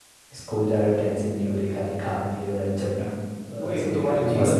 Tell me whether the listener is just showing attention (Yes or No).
No